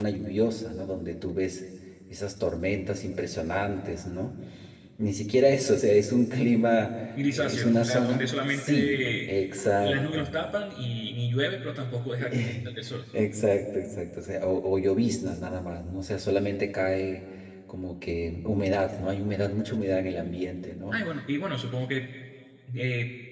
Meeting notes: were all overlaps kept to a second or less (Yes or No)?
No